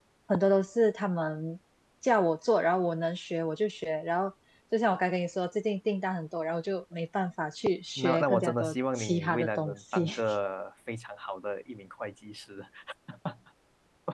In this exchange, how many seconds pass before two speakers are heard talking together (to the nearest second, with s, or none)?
8 s